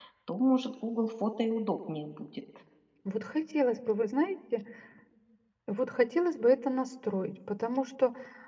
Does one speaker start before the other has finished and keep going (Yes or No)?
No